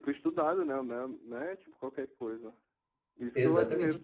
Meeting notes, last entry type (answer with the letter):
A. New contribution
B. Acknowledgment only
B